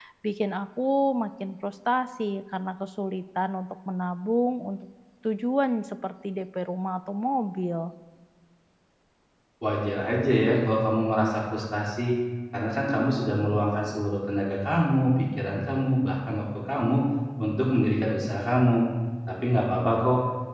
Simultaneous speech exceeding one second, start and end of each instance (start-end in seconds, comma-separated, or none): none